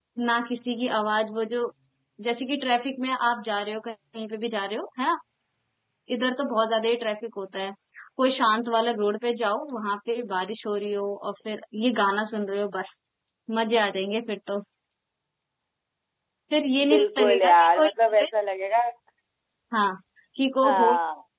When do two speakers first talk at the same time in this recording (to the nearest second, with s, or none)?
17 s